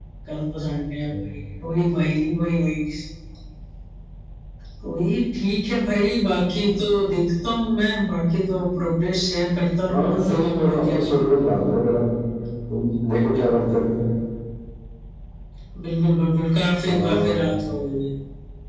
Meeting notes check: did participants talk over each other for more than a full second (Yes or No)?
Yes